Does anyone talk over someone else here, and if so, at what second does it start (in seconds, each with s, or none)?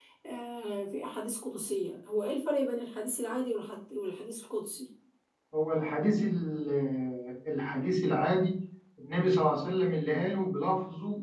none